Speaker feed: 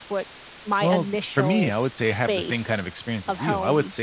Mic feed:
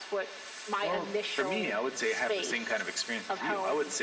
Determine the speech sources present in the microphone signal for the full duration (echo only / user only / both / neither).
echo only